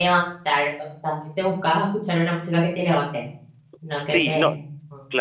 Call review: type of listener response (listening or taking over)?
taking over